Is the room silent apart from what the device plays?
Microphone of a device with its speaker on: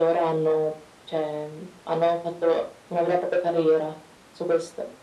Yes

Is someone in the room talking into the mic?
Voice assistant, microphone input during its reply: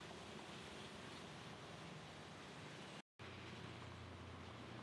No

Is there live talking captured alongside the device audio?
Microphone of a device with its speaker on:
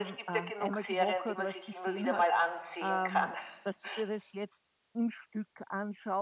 Yes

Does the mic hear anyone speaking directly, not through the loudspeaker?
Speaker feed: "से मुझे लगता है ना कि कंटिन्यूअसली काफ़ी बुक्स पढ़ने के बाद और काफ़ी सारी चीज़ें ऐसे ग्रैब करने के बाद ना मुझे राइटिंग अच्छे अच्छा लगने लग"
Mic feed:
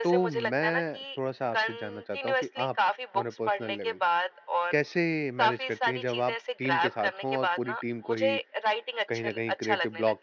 Yes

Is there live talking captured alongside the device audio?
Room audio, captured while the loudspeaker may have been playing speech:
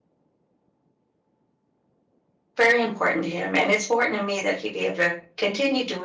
Yes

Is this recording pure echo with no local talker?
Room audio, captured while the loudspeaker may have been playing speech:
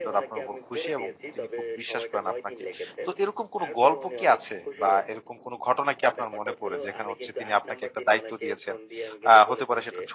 No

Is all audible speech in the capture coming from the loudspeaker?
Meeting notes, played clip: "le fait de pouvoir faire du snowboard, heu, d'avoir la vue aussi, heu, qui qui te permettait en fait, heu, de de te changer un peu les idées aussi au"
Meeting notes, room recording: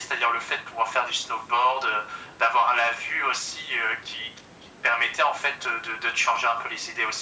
Yes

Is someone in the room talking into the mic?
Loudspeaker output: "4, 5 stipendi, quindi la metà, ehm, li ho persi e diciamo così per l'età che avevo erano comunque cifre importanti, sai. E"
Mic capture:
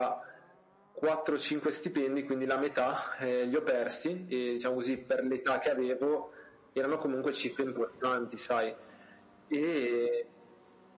No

